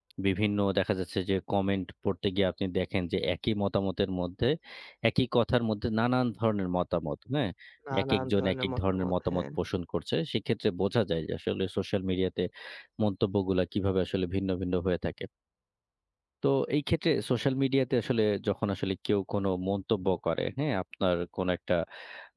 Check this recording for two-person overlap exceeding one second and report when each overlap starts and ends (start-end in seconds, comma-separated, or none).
8.0-9.4